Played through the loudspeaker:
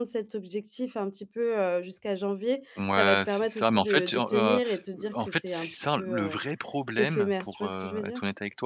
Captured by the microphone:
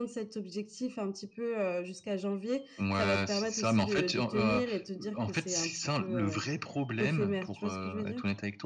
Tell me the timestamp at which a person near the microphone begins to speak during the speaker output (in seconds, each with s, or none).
none